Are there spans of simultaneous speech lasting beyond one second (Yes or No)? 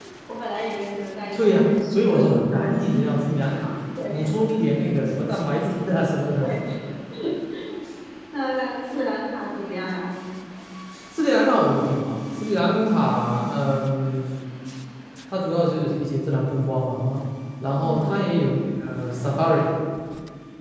Yes